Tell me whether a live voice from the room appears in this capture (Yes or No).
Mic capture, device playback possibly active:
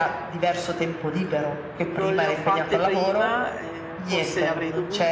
Yes